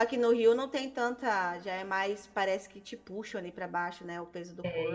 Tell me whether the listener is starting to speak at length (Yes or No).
Yes